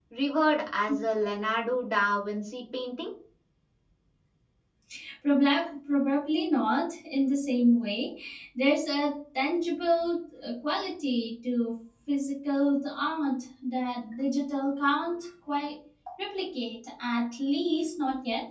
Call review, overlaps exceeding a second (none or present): none